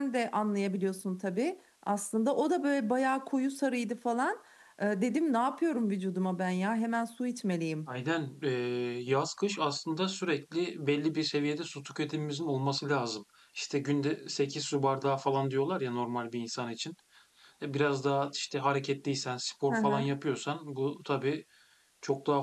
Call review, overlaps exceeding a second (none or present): none